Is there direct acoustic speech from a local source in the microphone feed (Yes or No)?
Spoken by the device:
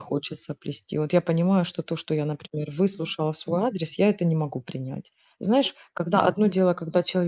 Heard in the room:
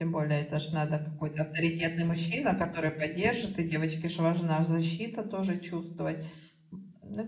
Yes